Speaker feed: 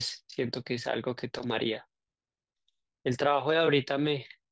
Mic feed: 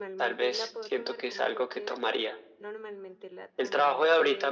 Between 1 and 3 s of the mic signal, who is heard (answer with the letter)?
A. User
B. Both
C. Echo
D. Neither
B